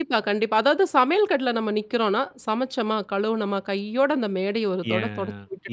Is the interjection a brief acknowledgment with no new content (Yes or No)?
No